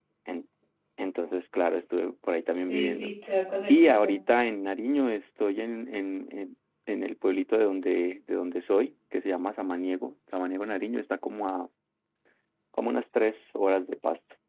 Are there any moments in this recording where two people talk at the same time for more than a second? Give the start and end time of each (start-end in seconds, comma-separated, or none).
none